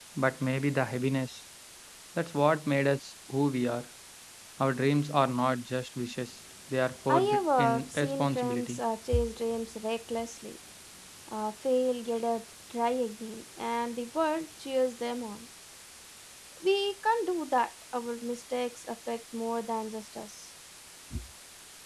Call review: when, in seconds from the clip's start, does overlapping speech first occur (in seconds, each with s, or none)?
7.1 s